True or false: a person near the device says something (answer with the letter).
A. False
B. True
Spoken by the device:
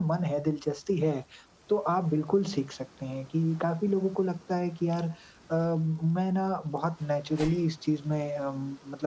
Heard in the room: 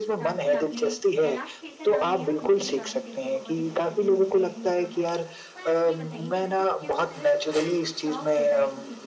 B